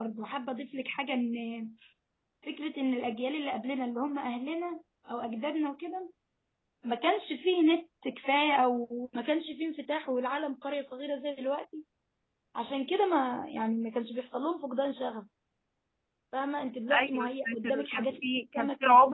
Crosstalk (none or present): present